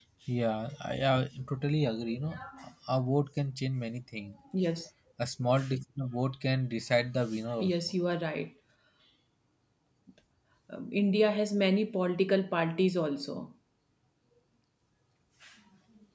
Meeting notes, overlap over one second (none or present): none